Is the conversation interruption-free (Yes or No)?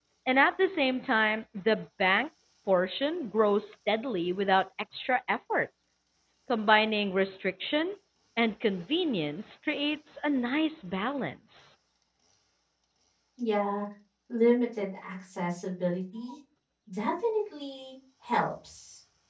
Yes